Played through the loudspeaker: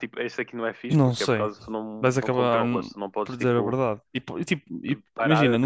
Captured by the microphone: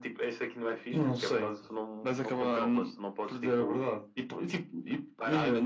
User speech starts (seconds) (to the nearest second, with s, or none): none